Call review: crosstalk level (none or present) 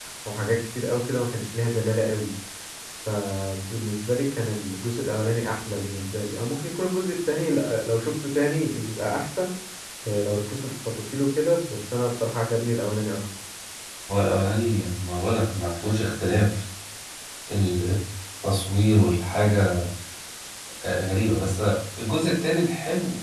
none